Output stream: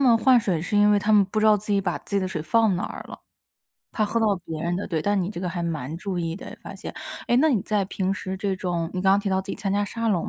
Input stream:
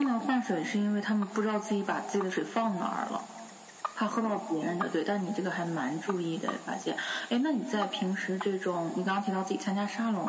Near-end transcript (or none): none